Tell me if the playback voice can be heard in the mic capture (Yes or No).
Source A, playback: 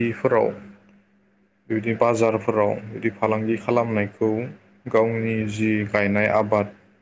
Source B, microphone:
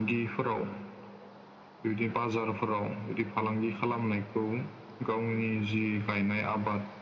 Yes